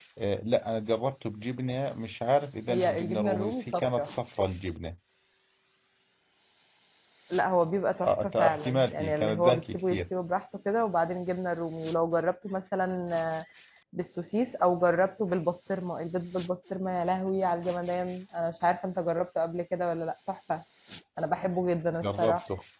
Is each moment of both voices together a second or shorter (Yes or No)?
No